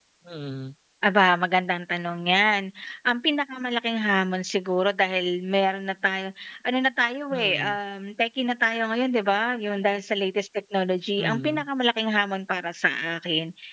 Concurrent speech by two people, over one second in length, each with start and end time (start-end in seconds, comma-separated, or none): none